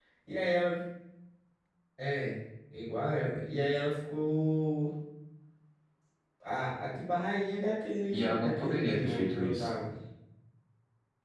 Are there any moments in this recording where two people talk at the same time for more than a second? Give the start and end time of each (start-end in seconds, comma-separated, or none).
8.1-9.7